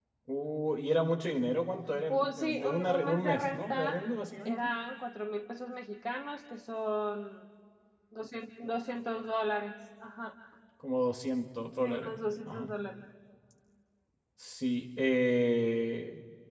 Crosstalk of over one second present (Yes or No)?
Yes